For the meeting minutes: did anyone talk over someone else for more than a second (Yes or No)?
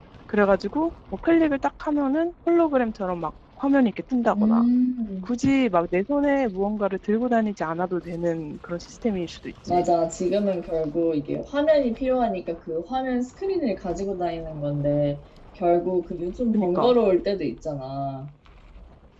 No